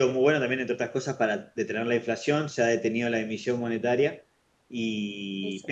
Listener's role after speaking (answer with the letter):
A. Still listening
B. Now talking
A